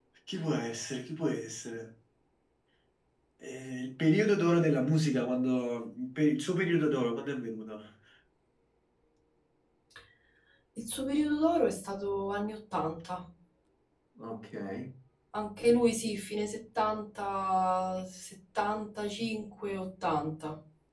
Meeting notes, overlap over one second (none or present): none